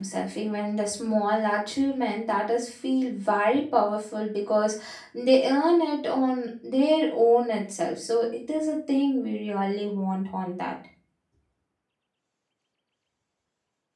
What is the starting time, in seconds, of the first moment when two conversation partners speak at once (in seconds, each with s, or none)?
none